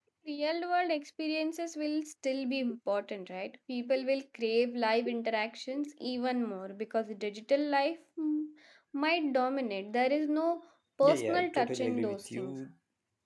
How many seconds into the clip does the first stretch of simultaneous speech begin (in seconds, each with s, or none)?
11.0 s